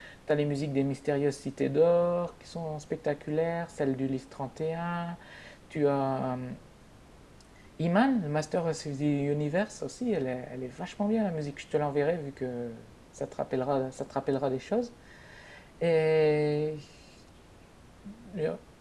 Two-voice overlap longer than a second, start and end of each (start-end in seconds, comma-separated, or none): none